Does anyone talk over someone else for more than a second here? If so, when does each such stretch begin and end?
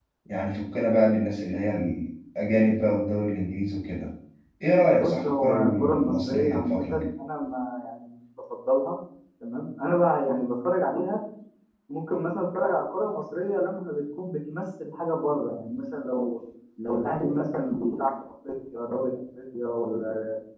4.9-6.8

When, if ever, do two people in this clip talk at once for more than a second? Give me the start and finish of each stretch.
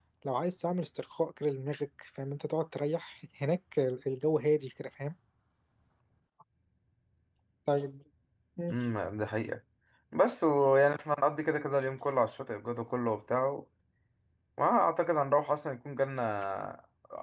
none

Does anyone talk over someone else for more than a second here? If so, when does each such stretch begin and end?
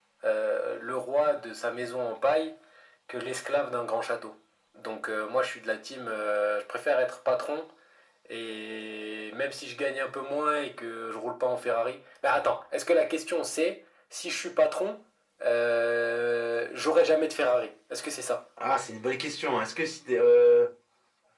none

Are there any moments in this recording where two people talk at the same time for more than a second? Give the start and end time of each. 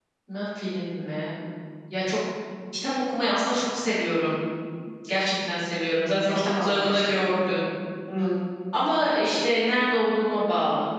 6.2-7.5

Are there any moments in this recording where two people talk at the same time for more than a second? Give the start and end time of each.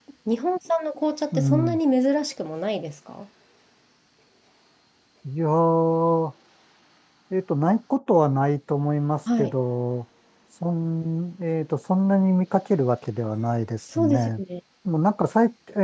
none

